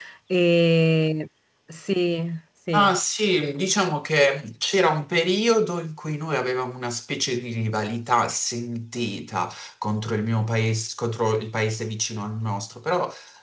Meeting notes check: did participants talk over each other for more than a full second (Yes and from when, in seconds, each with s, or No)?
No